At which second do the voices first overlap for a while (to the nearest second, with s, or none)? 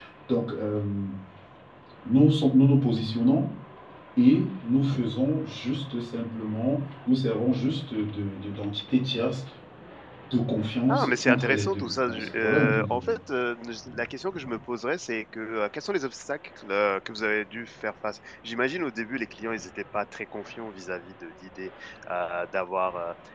11 s